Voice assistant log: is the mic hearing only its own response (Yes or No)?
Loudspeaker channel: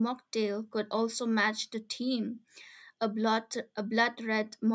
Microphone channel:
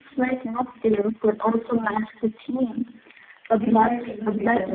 No